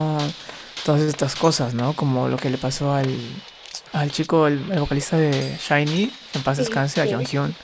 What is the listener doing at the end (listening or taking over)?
taking over